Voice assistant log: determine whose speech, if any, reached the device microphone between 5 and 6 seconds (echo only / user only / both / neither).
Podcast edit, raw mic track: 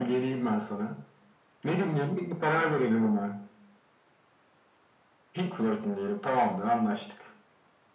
echo only